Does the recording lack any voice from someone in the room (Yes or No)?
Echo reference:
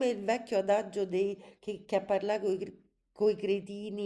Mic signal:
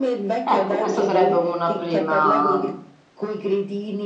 No